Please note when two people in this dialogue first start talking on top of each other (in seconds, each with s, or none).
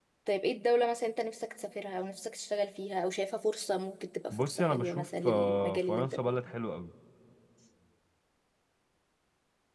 4.3 s